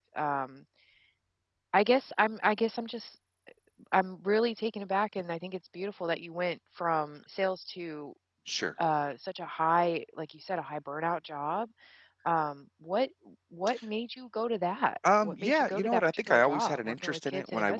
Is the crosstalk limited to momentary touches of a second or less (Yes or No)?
No